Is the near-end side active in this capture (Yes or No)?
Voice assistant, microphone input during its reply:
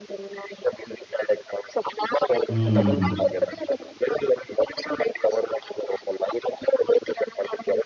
Yes